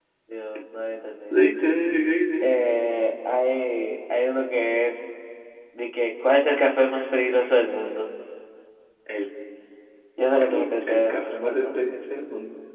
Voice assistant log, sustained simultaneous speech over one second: present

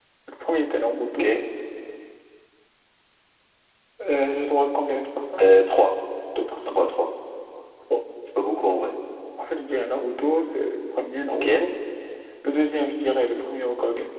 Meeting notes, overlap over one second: none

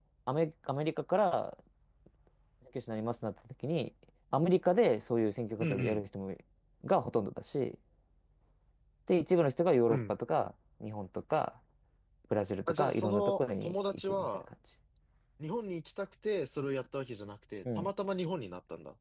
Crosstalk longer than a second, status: present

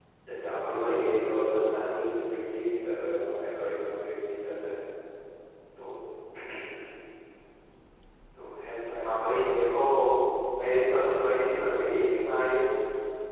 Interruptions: present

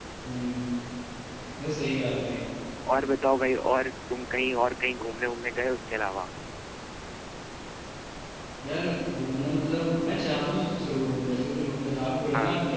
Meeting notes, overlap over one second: none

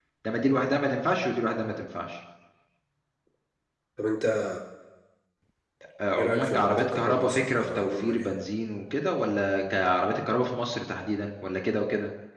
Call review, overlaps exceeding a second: present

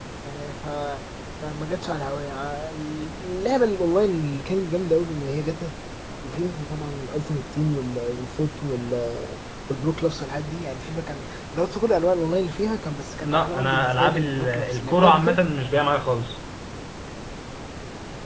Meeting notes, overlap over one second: present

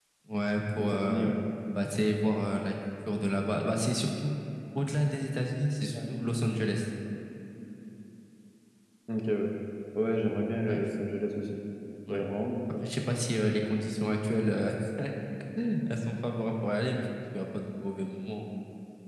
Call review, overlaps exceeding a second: none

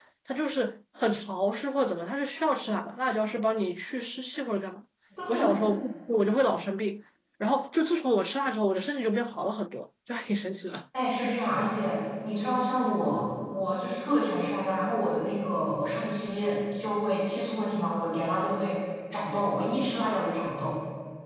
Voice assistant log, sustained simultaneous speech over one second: none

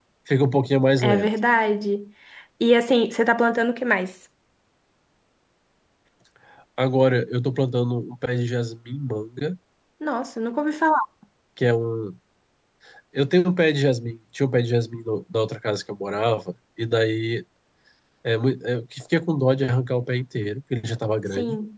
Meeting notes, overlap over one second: none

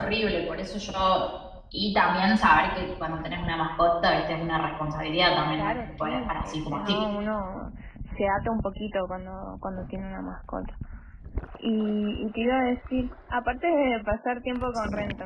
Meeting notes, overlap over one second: present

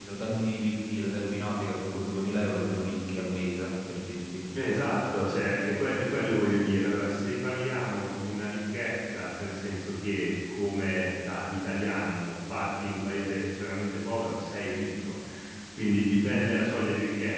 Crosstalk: none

